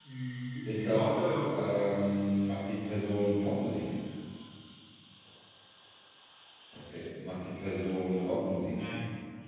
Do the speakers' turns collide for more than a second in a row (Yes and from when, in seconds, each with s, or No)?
Yes, from 0.7 s